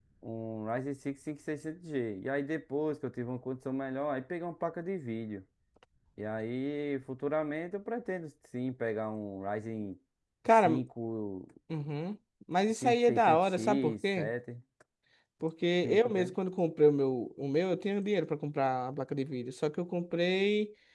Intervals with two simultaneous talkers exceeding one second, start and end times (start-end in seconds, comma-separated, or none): 12.7-14.3